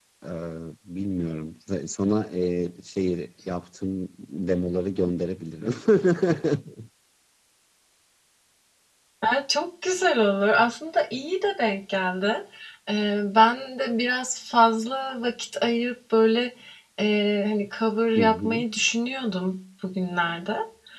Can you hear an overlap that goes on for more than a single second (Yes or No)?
No